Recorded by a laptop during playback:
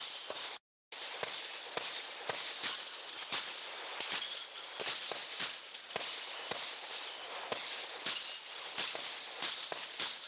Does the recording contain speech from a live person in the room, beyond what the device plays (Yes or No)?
No